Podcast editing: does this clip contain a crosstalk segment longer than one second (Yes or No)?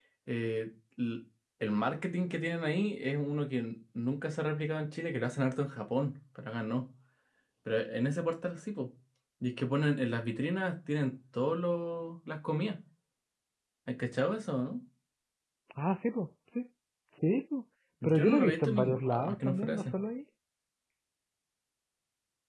Yes